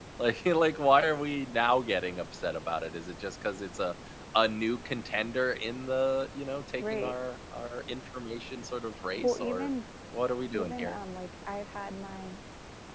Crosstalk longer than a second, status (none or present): none